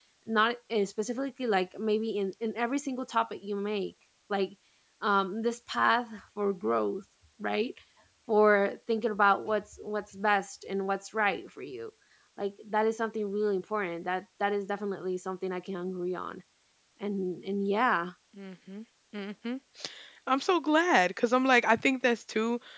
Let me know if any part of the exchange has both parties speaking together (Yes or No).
No